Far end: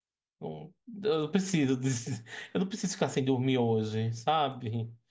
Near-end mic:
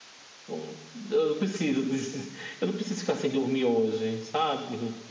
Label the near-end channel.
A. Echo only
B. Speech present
A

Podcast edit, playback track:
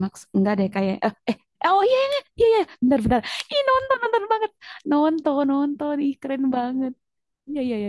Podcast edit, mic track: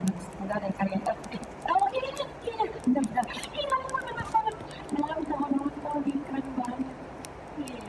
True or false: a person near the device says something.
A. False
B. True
A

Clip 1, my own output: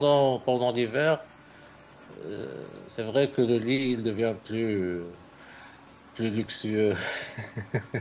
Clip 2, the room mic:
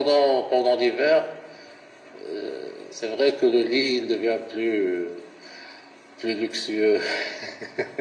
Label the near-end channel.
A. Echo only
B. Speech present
A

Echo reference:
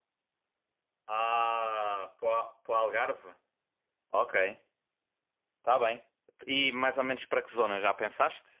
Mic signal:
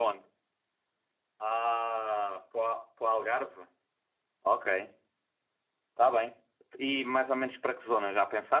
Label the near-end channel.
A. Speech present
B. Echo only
B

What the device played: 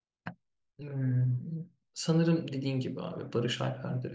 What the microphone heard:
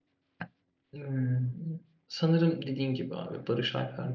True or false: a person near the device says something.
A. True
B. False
B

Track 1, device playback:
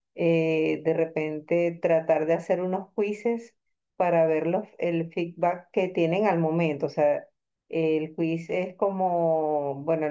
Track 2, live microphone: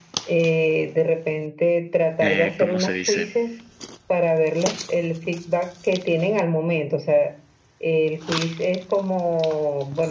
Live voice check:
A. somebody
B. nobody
A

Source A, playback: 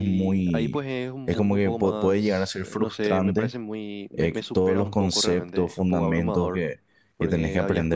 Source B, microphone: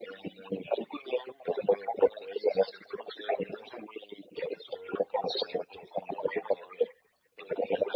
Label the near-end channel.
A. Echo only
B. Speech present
A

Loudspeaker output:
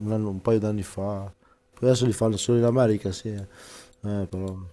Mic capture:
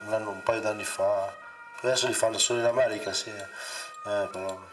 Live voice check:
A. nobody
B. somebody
A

